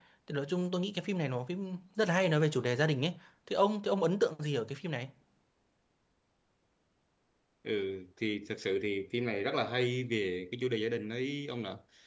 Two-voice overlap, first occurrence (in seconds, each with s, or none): none